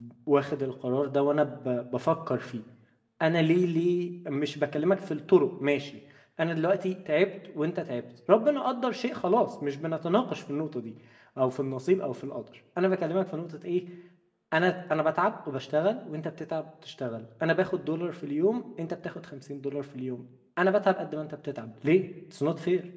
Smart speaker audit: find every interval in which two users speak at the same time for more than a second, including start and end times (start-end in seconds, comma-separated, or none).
none